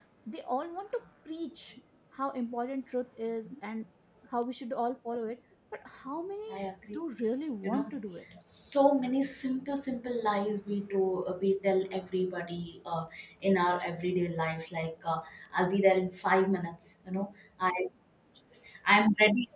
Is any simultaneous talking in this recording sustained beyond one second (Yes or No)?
No